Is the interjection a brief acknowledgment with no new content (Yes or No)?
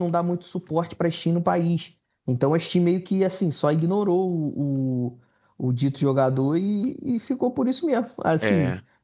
Yes